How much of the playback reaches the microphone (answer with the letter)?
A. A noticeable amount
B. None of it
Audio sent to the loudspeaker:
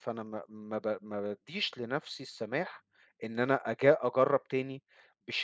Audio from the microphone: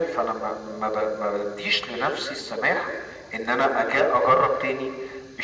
A